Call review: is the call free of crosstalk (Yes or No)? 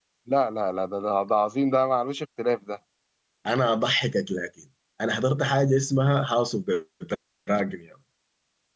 Yes